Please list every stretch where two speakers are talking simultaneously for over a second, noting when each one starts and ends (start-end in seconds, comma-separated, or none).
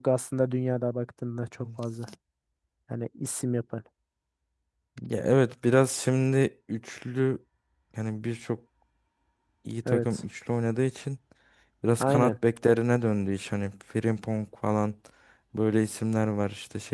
none